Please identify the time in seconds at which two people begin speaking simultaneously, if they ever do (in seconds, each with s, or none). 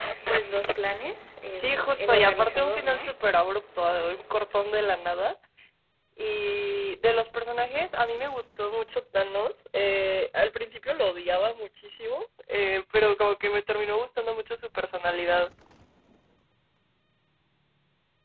1.5 s